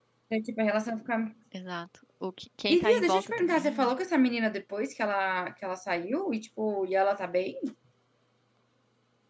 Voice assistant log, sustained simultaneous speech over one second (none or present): present